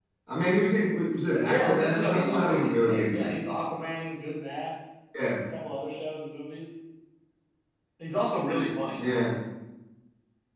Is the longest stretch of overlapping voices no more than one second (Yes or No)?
No